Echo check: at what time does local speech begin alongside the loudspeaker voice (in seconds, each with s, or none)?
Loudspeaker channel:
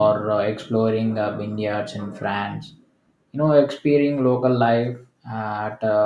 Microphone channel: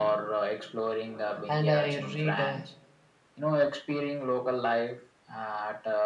1.5 s